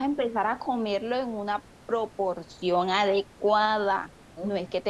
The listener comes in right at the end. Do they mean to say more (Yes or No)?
No